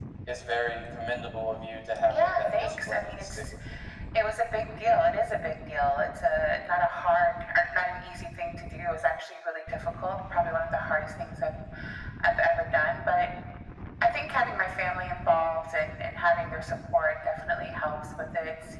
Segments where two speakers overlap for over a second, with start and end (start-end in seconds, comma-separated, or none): 2.1-3.4